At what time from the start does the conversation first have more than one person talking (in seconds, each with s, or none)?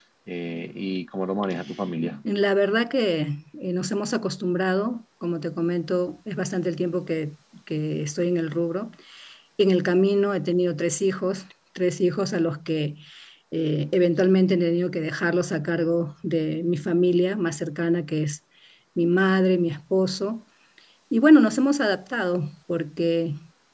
none